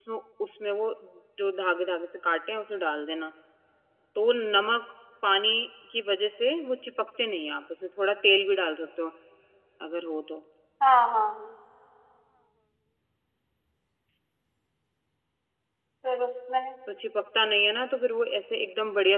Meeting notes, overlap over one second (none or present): none